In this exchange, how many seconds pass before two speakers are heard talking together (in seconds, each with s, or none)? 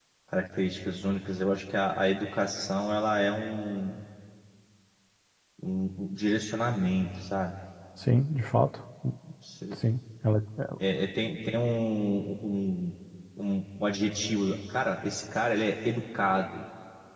none